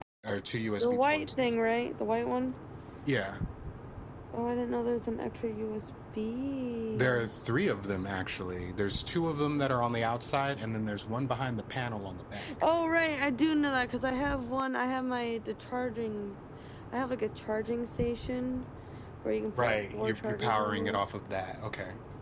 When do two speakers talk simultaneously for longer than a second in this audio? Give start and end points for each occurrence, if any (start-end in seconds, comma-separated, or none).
19.6-21.0